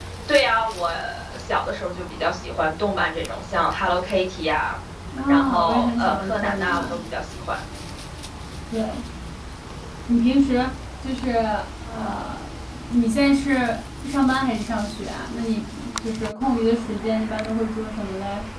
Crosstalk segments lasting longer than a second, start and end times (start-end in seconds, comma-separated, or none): 5.3-7.0